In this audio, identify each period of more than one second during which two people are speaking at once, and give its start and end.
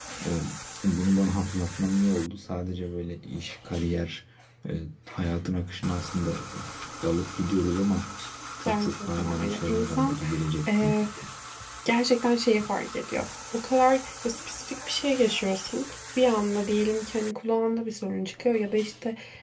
8.7-10.2

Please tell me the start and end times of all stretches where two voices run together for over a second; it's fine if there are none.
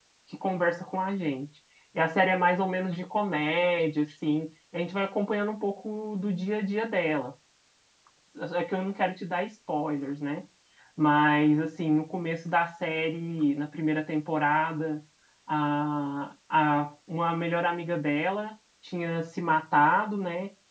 none

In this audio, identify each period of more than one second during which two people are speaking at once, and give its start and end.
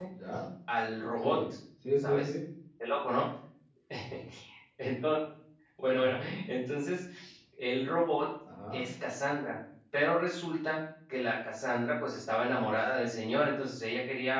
none

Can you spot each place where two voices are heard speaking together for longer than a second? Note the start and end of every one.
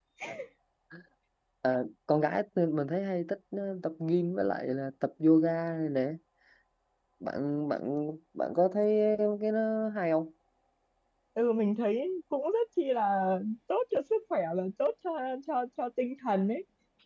none

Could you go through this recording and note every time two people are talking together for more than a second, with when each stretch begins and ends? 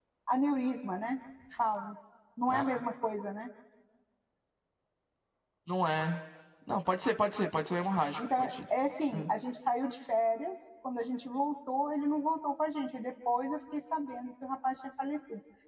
none

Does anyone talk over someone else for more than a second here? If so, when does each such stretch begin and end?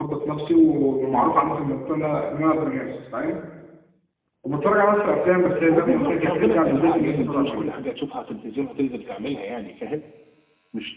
5.6-7.7

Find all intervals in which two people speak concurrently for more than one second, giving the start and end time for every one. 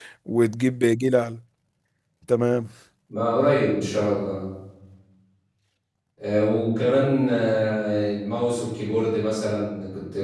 none

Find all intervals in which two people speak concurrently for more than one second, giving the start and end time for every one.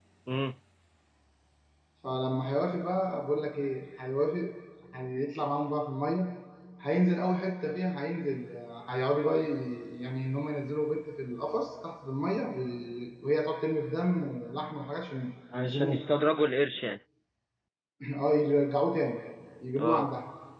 none

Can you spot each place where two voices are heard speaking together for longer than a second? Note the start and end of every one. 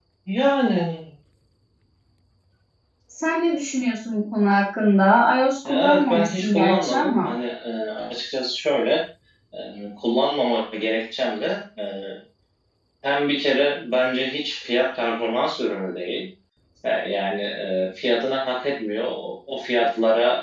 5.7-7.3

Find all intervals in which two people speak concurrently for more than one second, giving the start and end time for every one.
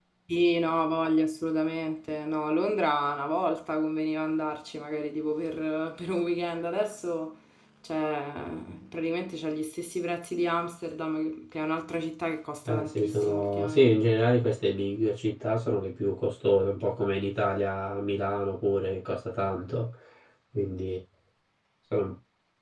12.7-13.9

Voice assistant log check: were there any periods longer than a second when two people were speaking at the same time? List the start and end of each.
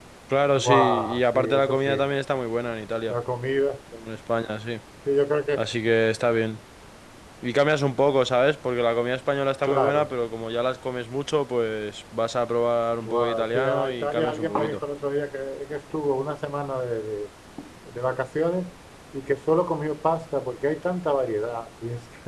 0.6-2.0, 13.0-14.8

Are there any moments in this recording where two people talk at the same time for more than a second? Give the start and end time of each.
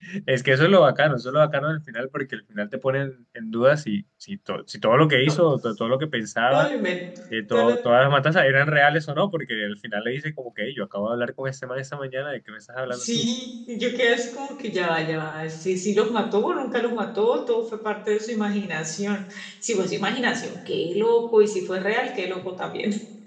none

